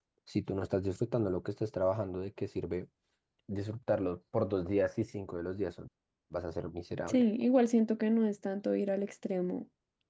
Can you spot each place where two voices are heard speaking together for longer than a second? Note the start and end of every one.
none

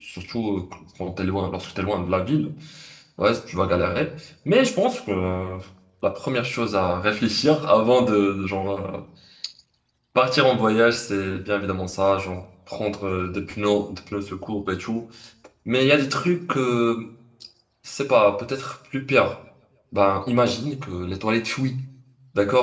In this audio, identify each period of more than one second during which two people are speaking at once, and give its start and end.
none

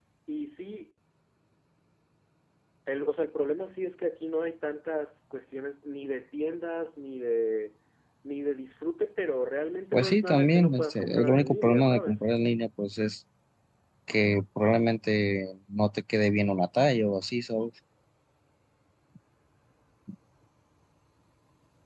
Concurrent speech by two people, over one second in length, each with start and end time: 9.9-12.2

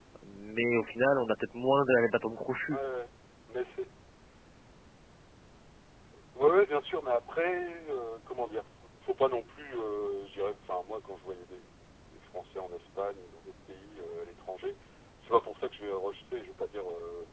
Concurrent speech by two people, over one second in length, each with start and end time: none

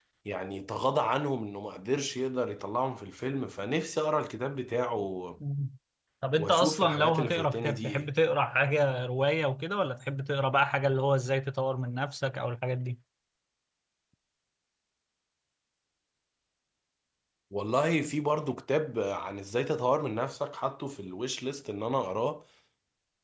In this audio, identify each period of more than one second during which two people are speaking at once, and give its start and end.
6.4-8.1

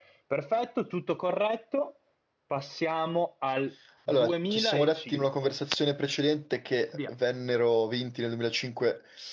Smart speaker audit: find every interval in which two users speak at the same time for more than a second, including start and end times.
4.1-5.5

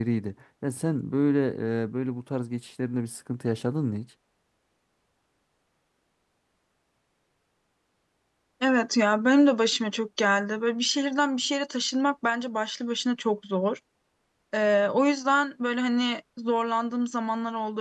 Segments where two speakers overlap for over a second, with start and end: none

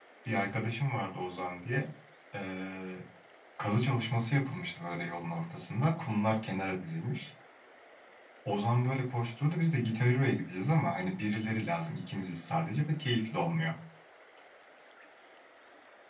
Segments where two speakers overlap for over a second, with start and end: none

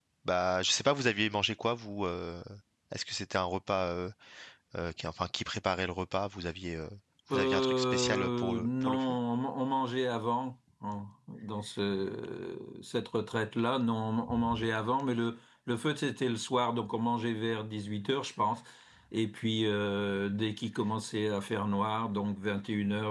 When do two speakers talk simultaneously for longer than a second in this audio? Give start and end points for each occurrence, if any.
7.3-9.0

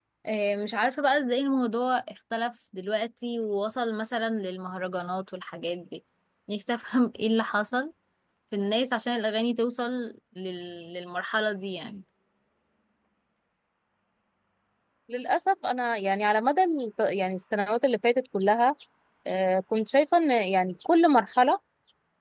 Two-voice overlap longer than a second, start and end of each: none

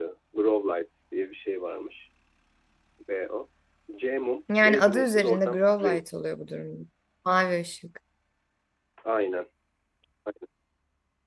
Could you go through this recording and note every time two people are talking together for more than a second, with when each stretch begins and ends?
4.6-6.0

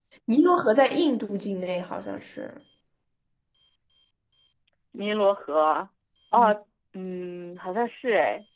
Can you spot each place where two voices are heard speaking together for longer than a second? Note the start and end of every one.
none

